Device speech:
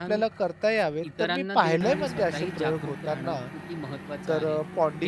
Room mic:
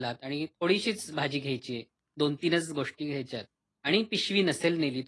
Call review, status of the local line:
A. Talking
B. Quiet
A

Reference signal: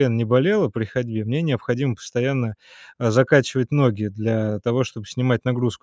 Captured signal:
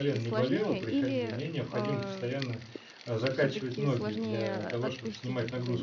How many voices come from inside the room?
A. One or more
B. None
A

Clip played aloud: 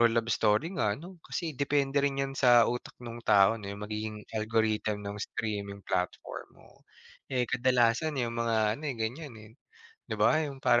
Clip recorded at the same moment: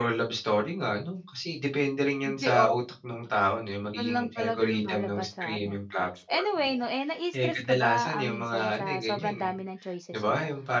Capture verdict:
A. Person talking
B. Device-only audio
A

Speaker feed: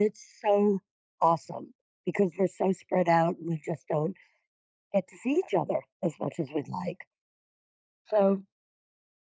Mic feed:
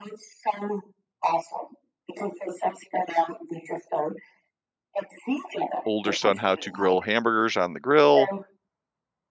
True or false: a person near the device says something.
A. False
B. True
B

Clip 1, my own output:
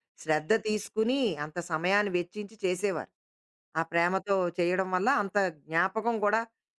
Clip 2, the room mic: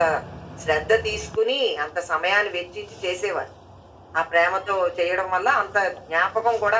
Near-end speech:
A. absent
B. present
A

